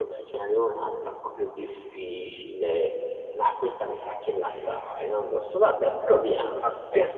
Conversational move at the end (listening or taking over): listening